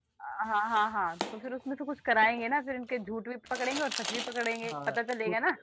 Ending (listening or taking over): taking over